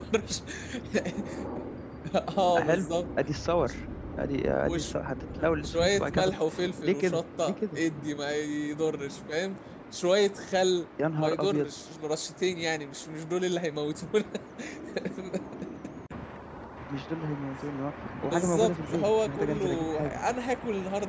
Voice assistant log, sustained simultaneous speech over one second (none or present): present